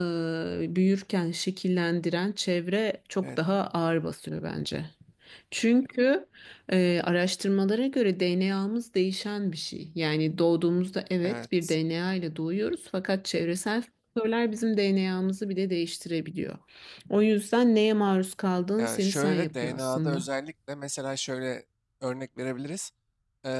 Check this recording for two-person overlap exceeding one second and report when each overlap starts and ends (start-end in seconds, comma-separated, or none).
18.8-20.2